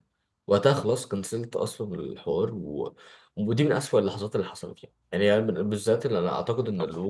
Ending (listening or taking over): listening